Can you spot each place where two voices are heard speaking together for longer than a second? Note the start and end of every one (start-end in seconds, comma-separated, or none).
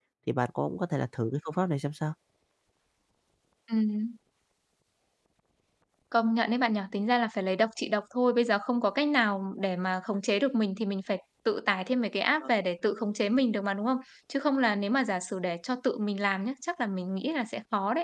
none